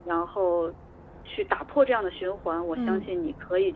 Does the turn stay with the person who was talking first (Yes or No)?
Yes